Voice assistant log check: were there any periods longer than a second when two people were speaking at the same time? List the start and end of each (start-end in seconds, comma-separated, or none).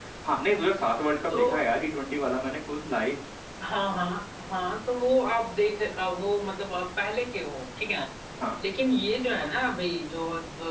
none